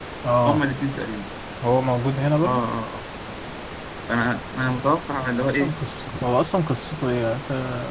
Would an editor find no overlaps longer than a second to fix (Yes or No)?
Yes